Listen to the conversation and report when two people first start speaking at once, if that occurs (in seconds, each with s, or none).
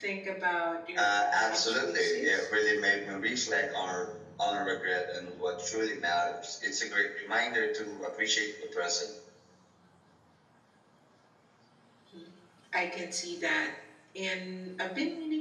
1.0 s